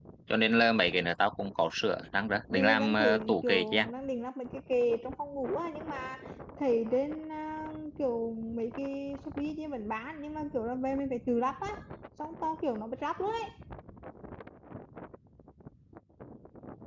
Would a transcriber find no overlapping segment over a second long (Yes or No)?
No